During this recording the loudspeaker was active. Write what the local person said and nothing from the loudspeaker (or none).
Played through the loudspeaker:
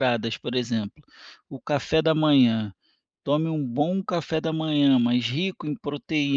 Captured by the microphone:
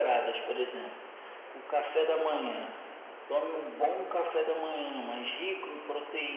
none